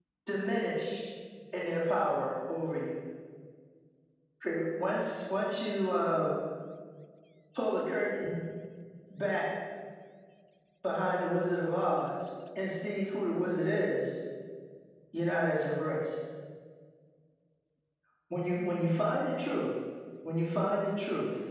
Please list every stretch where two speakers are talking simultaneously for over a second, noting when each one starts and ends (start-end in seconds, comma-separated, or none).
none